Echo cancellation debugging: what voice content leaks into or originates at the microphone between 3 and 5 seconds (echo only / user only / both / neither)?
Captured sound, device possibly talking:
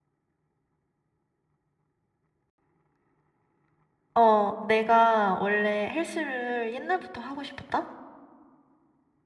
user only